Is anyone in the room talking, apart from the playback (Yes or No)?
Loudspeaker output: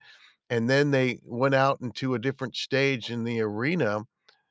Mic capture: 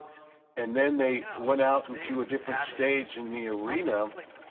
Yes